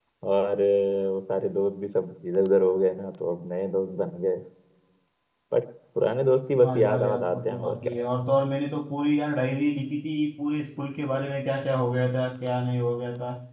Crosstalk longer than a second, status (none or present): present